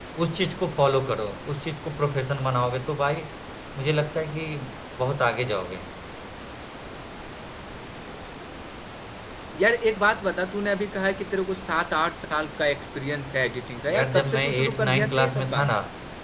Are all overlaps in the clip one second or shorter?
No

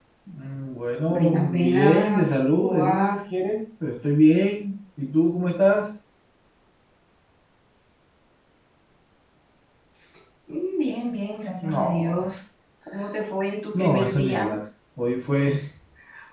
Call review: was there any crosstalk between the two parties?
Yes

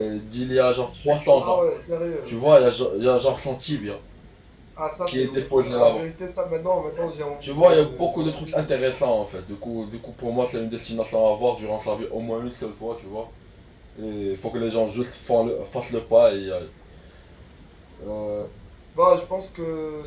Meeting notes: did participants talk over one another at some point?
Yes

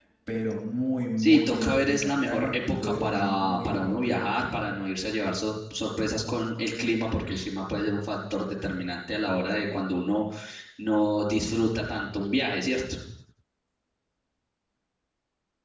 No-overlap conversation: No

